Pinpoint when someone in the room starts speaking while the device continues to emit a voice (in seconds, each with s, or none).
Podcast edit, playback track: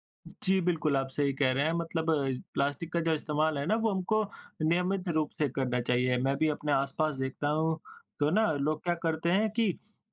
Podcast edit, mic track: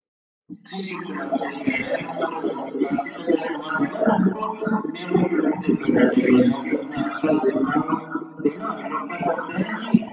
none